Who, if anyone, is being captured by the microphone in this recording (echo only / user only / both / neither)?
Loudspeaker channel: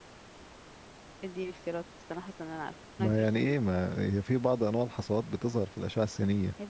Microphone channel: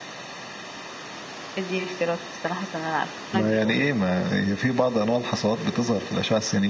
both